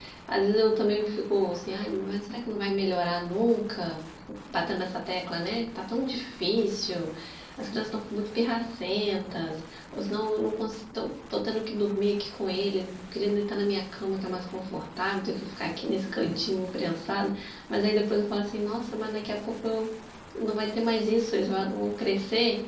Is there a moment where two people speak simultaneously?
No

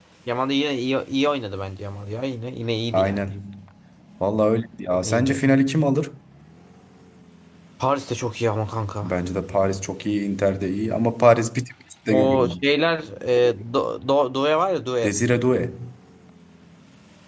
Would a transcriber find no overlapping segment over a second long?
Yes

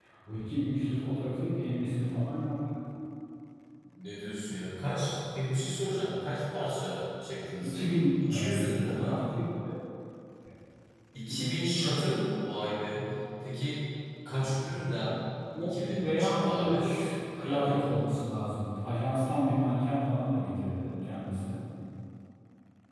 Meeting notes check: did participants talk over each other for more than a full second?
Yes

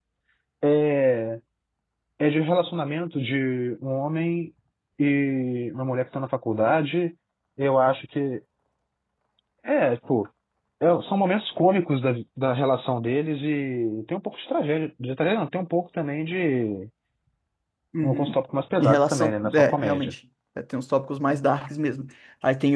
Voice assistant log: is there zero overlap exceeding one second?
No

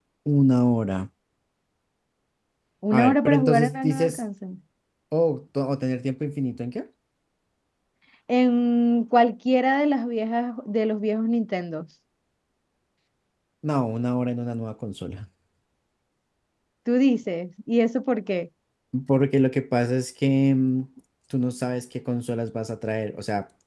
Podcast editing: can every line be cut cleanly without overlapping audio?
No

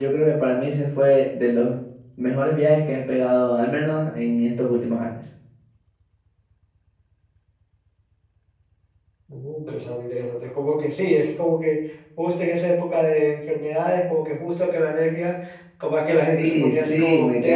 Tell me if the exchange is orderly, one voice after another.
No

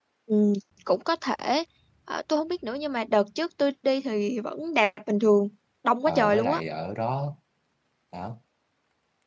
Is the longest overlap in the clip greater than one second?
No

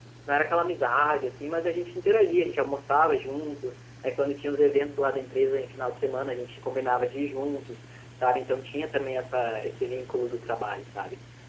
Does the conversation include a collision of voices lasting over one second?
No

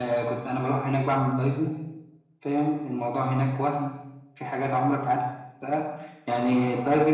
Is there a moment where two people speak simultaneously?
No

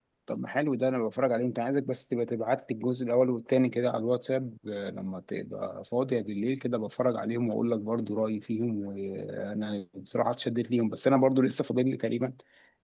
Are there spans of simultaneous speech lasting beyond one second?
No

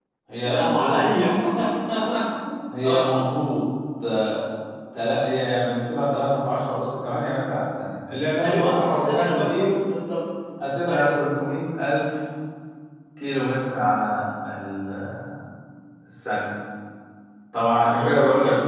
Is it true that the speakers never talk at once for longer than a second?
No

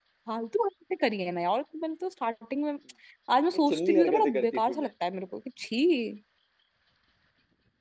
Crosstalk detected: Yes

